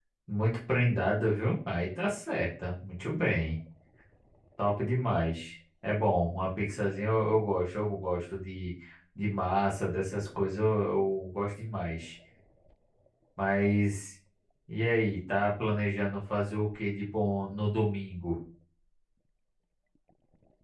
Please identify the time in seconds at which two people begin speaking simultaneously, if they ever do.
none

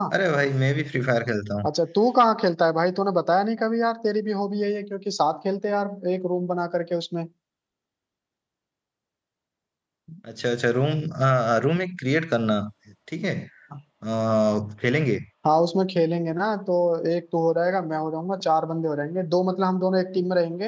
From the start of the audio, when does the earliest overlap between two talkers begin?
none

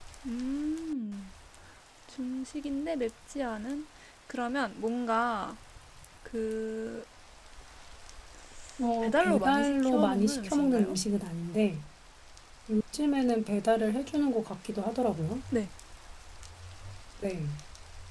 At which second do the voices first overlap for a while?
9.0 s

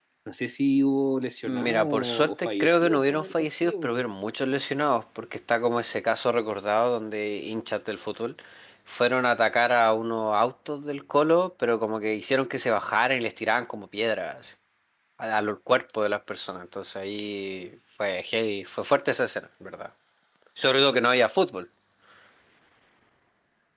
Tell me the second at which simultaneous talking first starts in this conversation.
1.5 s

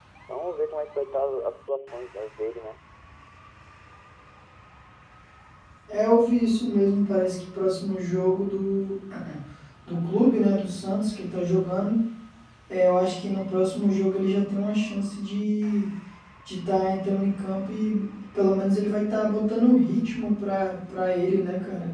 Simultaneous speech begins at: none

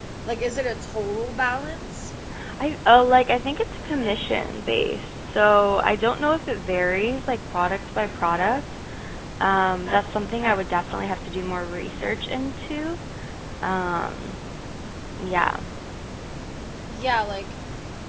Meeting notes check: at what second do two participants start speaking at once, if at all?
none

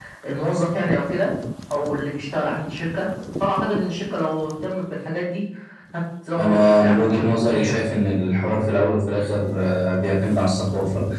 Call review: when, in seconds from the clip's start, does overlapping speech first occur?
6.4 s

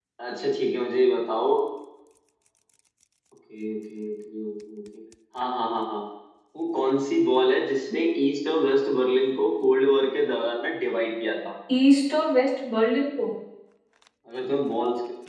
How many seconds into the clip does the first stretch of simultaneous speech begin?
none

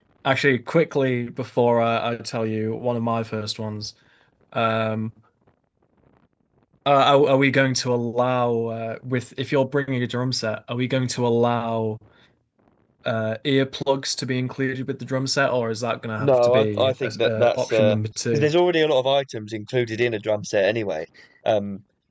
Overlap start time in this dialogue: 16.2 s

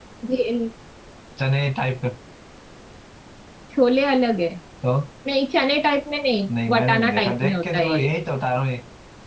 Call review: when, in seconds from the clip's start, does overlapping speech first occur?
6.5 s

